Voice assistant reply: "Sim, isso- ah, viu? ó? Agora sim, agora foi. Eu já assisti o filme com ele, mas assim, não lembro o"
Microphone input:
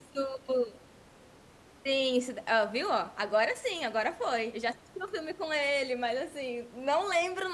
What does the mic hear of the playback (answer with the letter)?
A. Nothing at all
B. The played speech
B